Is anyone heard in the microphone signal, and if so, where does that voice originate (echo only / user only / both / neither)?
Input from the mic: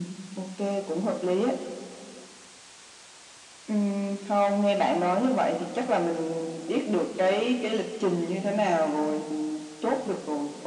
echo only